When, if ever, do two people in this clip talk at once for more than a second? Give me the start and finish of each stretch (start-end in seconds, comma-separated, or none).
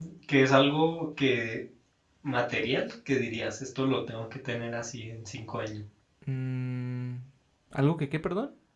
none